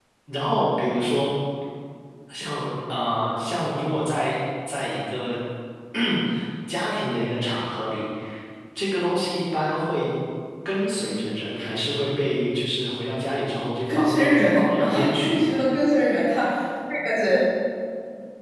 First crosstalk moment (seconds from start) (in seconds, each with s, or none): 13.9 s